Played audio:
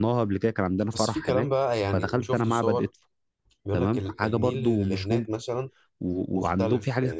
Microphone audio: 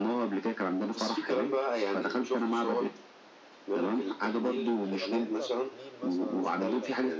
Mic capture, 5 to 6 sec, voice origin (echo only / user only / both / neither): both